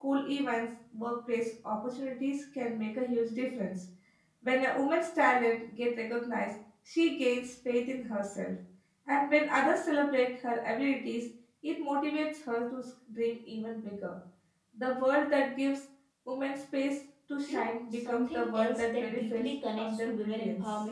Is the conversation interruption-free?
No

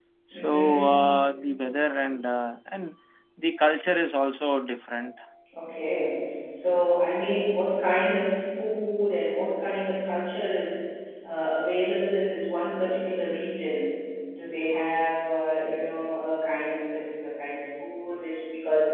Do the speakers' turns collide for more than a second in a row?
No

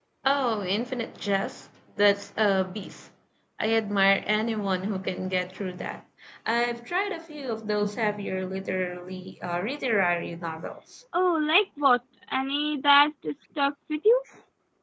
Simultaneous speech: No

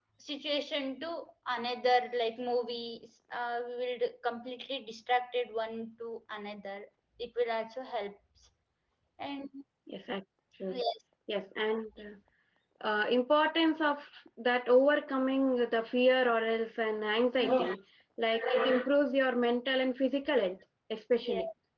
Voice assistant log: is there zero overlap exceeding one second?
Yes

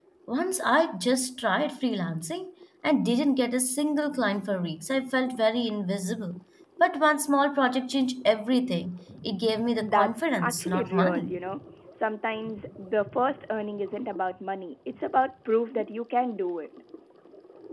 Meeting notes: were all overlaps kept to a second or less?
No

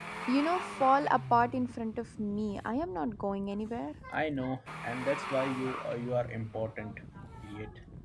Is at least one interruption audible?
No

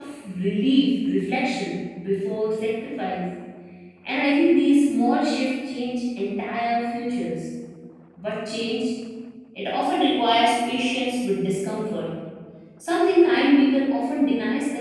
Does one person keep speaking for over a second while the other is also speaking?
No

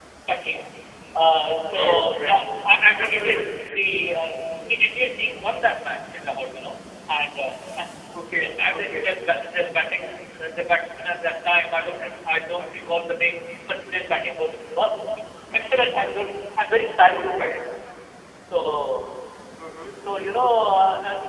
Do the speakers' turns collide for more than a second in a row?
Yes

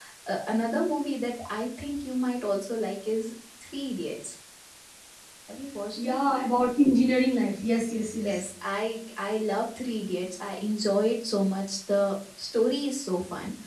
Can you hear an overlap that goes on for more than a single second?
No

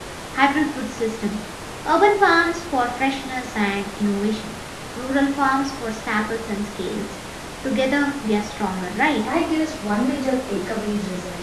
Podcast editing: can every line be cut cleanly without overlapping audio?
Yes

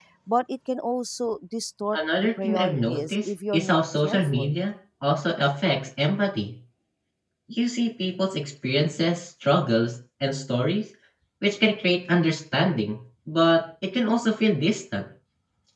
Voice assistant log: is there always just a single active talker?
No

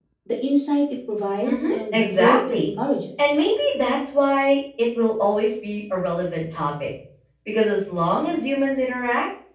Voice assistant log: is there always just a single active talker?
No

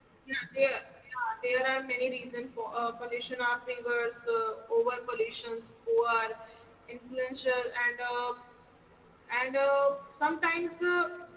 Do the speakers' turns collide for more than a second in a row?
No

